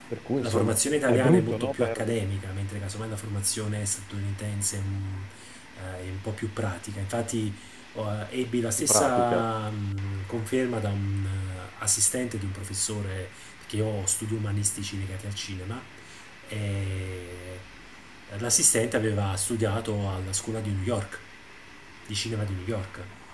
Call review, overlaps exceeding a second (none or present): present